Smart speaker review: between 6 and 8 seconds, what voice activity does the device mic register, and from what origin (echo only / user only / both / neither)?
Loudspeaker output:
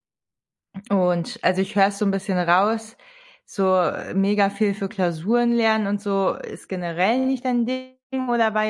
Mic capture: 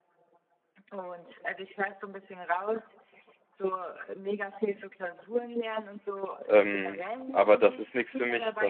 both